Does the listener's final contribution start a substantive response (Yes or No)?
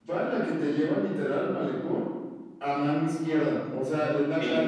No